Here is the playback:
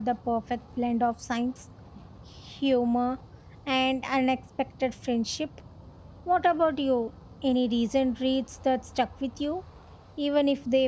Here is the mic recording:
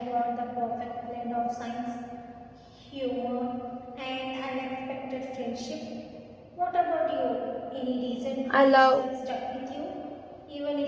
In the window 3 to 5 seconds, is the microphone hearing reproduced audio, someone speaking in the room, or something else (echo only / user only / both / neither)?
echo only